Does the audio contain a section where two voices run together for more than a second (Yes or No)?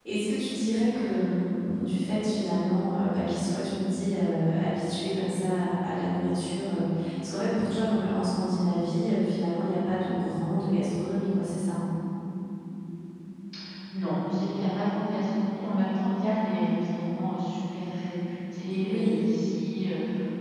No